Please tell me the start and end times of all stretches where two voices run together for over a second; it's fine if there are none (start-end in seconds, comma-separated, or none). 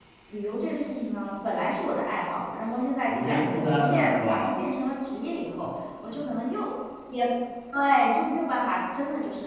3.1-4.5